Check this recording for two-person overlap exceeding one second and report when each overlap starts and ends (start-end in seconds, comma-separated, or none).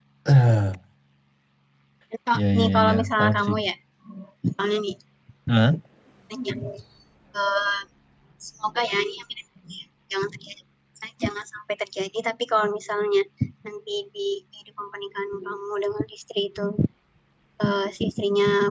2.4-3.6